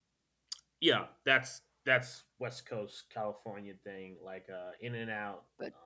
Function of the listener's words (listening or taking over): listening